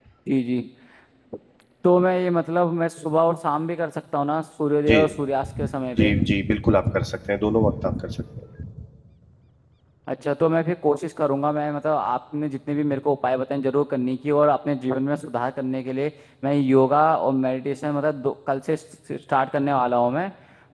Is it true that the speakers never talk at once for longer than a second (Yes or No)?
Yes